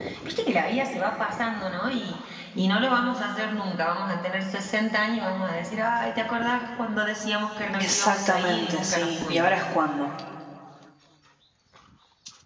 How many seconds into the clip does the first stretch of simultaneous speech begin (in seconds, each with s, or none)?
7.7 s